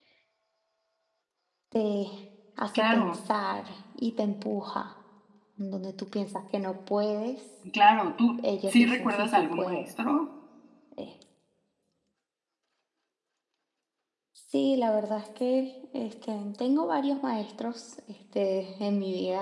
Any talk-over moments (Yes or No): Yes